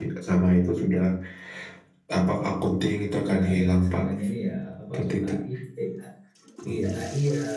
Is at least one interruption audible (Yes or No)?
Yes